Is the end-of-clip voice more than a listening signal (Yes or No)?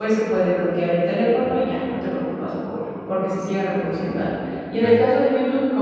No